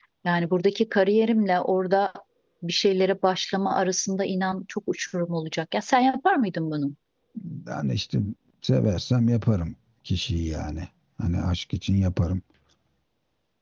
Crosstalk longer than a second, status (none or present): none